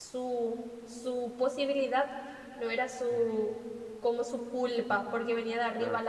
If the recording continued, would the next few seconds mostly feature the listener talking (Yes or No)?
No